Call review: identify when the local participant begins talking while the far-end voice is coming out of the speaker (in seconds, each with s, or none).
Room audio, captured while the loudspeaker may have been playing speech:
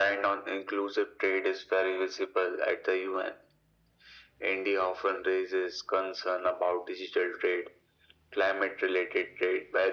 none